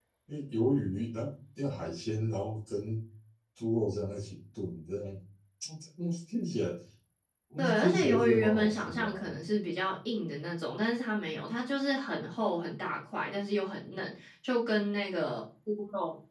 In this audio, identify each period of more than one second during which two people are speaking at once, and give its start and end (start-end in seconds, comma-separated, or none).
7.6-9.3